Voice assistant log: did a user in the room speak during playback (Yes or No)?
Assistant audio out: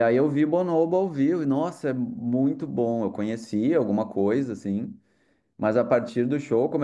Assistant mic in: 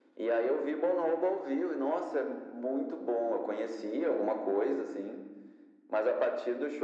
No